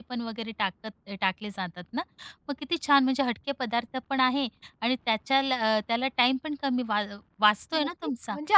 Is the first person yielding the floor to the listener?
Yes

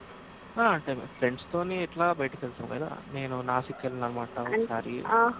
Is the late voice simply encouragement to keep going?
No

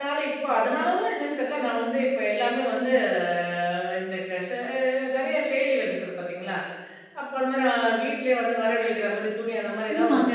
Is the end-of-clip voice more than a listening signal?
Yes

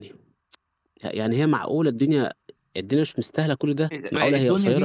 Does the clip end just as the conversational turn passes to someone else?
Yes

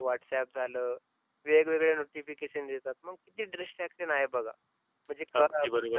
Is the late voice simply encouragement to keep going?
No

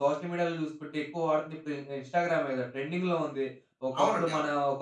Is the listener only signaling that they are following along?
Yes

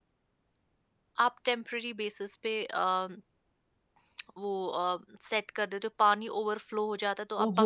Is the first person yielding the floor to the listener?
Yes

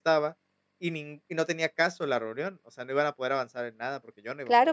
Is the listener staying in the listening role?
No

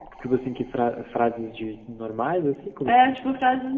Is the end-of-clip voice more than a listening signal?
Yes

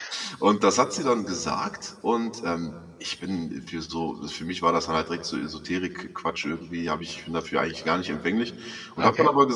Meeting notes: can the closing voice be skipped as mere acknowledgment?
Yes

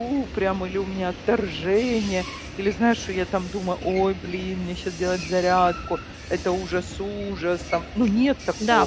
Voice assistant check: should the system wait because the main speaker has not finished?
No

